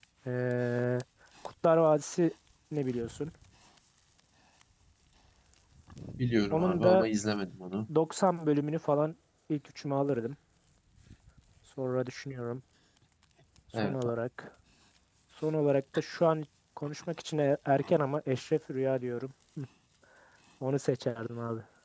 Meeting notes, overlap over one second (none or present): none